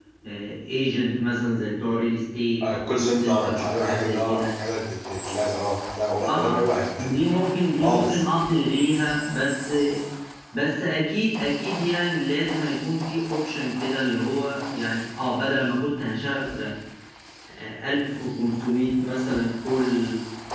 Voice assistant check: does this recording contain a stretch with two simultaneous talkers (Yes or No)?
Yes